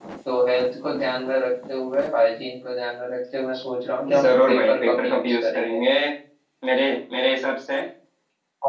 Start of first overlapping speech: 4.0 s

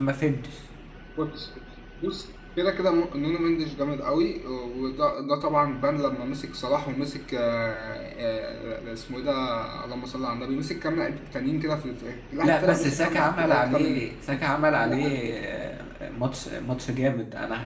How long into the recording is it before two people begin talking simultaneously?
12.4 s

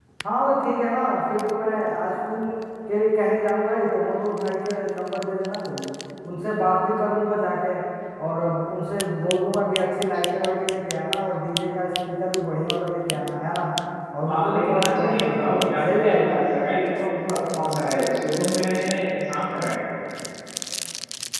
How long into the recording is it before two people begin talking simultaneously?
14.3 s

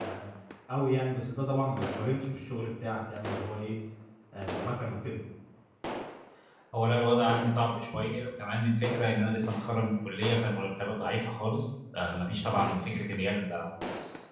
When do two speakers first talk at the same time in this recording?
none

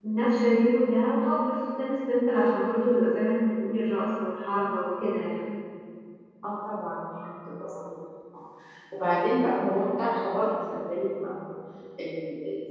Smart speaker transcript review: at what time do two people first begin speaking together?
none

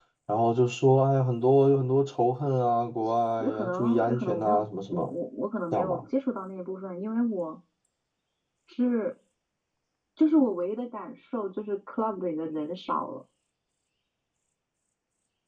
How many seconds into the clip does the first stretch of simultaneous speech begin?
3.4 s

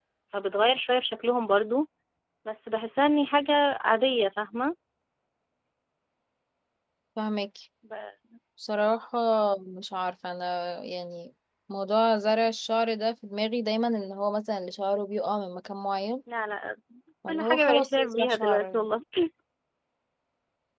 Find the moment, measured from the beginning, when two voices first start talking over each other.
17.3 s

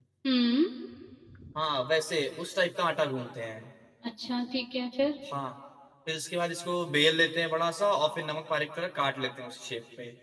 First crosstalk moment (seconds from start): none

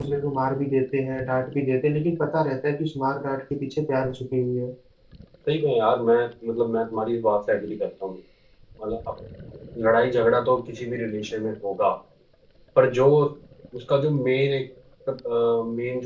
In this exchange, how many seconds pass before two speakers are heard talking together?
none

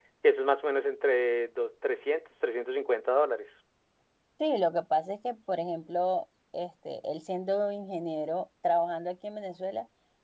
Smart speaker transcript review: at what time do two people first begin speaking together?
none

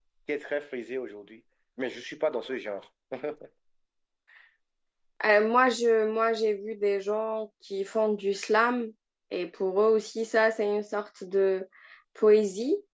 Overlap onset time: none

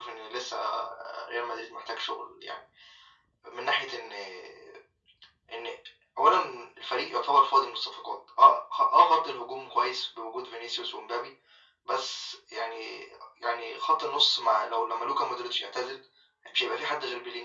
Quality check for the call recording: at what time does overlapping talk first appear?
none

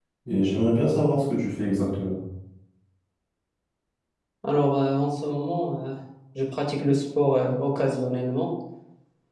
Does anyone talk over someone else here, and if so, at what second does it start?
none

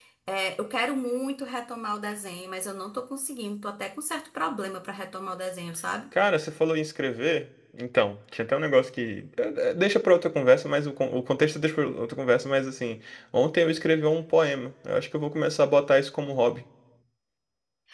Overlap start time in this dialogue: none

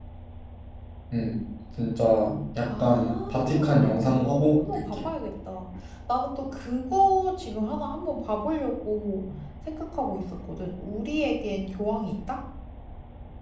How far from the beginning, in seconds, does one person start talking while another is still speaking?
2.7 s

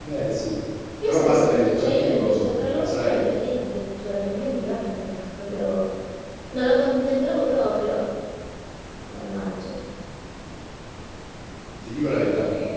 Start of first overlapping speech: 1.1 s

